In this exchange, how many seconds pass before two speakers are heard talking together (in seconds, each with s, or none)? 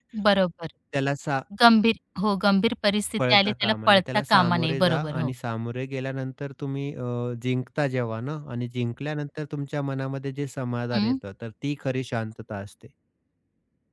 3.2 s